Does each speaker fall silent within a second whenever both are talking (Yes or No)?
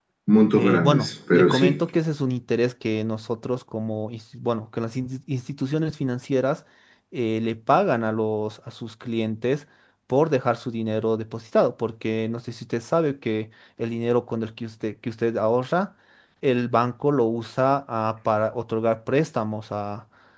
No